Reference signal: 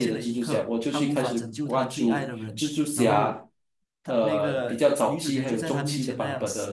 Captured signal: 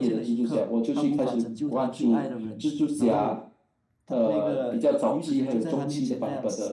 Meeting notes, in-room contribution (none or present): none